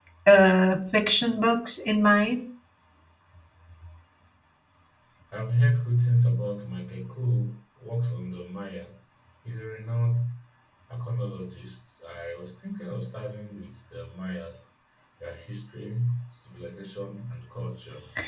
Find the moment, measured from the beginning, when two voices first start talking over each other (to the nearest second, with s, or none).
none